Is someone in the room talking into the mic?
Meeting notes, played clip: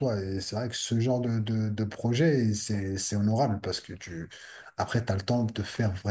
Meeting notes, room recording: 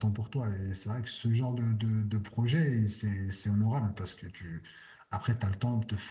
No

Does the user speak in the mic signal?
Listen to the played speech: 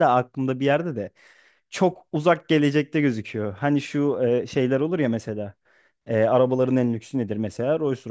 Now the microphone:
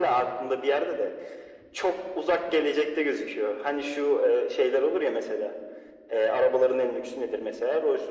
No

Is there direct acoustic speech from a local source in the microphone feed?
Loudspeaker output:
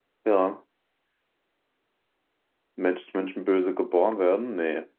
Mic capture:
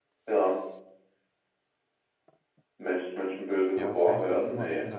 Yes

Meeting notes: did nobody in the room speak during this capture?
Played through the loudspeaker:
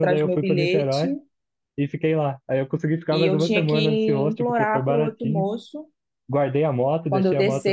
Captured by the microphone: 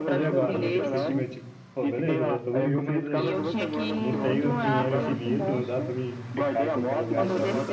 No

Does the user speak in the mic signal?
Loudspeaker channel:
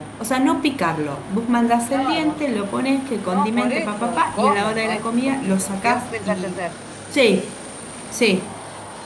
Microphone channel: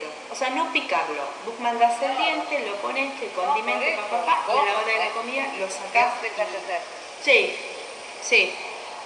No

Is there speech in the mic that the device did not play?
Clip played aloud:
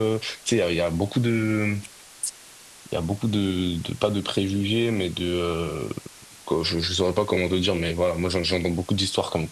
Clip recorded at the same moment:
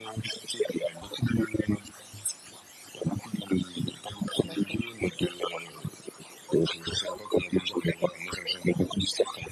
Yes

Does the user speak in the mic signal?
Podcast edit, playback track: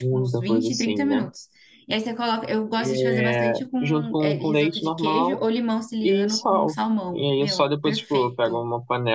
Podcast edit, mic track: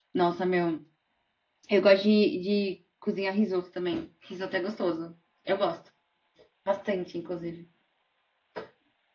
Yes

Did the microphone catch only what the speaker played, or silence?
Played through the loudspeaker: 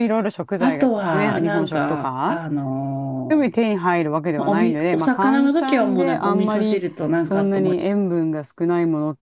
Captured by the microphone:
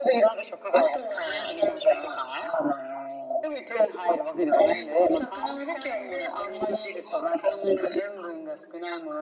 Yes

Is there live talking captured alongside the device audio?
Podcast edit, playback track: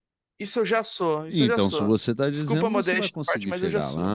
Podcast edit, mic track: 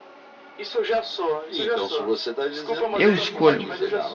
Yes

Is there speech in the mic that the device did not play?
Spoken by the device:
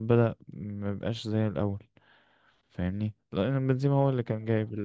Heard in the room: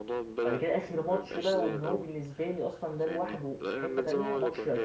Yes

